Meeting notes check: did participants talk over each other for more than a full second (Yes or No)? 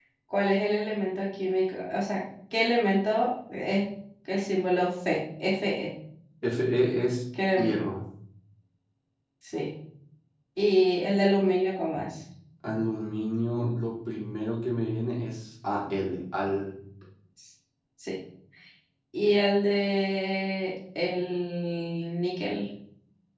No